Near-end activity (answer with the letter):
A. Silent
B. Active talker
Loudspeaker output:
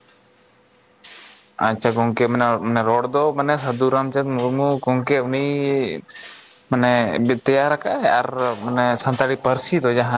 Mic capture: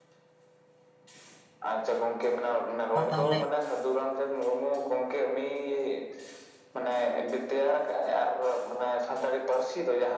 B